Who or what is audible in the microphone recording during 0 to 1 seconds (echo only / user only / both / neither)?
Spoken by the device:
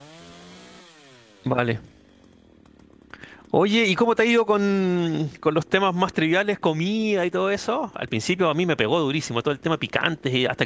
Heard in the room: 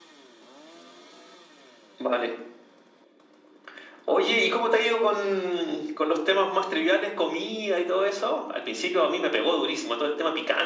neither